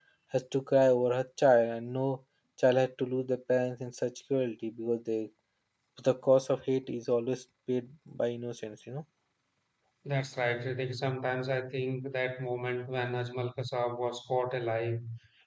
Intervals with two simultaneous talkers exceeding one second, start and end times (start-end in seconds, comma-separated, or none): none